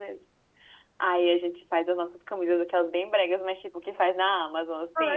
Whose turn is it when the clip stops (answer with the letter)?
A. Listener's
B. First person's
A